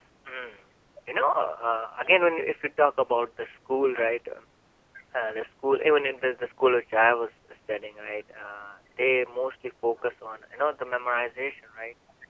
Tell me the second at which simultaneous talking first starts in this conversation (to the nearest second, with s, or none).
none